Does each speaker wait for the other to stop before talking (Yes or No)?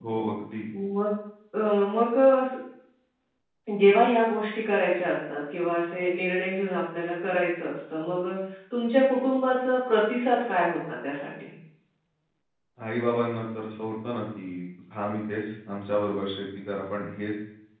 Yes